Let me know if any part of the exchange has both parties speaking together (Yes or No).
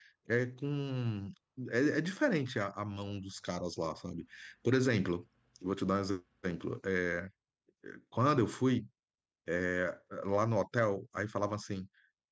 No